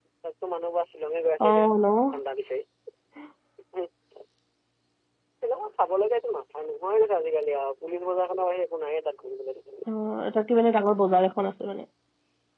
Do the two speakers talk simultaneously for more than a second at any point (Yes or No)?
No